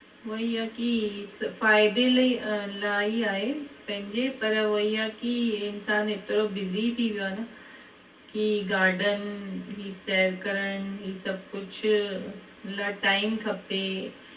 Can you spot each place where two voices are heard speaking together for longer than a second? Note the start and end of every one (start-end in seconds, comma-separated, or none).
none